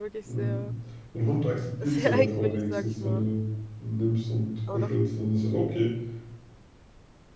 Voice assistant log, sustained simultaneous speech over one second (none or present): present